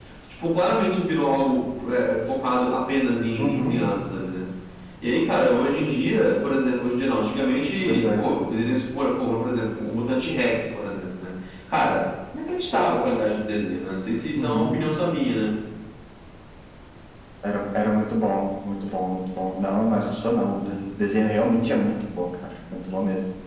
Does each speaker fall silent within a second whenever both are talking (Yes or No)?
Yes